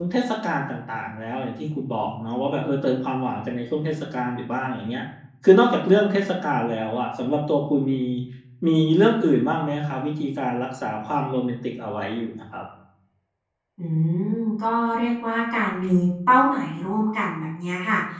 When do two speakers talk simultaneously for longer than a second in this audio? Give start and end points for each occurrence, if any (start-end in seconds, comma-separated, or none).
none